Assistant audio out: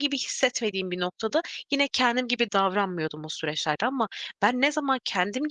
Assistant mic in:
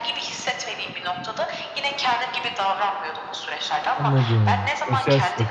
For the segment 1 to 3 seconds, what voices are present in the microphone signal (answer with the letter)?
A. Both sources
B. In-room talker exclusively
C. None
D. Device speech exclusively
D